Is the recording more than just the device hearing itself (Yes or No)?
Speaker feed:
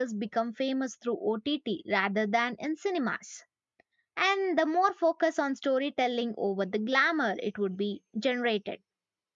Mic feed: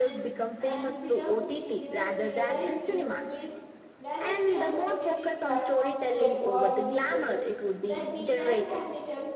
Yes